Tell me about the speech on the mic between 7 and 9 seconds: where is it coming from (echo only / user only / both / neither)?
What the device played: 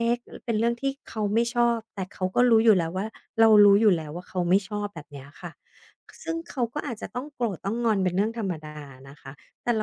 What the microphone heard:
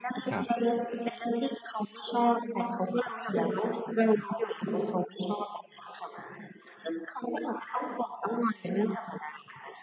echo only